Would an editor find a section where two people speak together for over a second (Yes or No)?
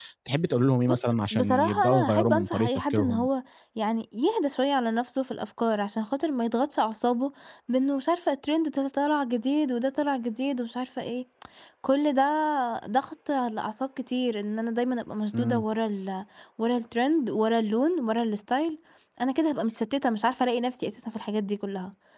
Yes